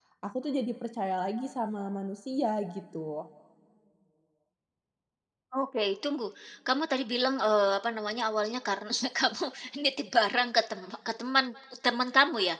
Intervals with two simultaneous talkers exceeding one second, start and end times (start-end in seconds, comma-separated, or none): none